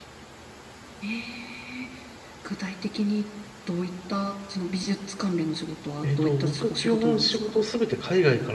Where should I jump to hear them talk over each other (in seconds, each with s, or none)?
6.0 s